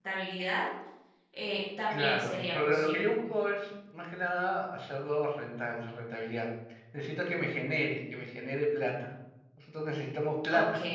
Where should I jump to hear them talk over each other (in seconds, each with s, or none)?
1.9 s